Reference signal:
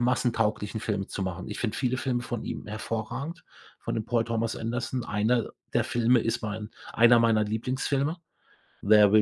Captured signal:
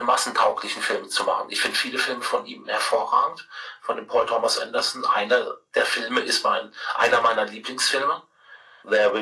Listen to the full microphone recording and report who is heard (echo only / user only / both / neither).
echo only